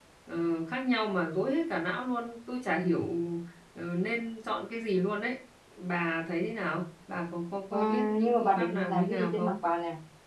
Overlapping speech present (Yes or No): Yes